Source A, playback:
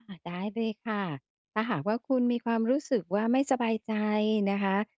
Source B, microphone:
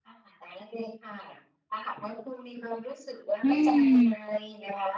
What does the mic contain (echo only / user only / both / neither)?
both